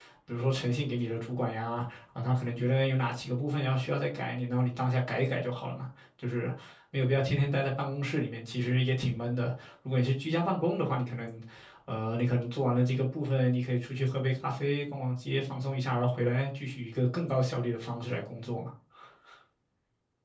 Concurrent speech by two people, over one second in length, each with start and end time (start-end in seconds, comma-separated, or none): none